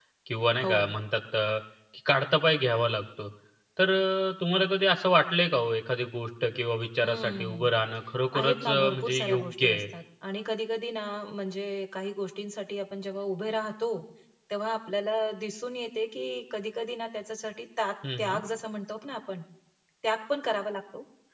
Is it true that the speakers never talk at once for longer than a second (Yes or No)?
No